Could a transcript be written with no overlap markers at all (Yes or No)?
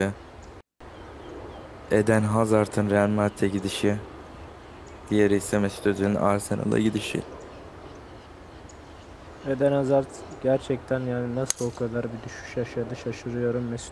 Yes